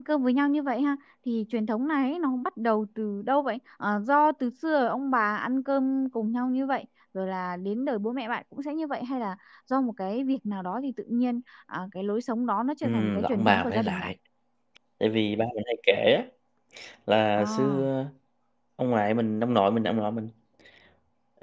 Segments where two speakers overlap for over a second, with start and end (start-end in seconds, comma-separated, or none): 12.8-14.1